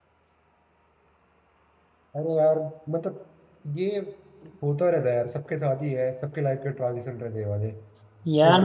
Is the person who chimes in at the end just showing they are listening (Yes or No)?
No